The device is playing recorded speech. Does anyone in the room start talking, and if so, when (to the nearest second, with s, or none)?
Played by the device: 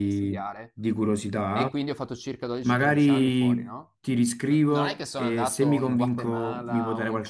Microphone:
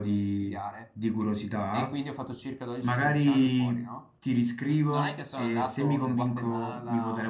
none